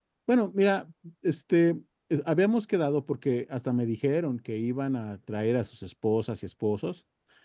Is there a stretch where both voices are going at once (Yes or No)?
No